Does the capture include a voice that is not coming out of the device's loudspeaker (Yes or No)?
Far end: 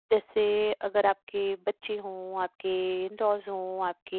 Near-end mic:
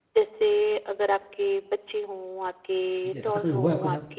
Yes